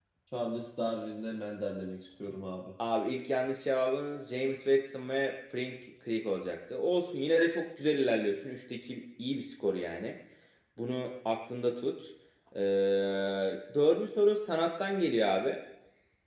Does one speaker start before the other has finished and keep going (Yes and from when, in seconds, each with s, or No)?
No